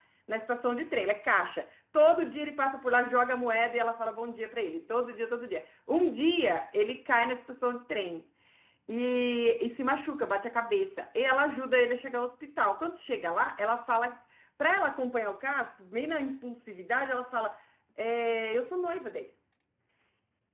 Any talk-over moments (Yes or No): No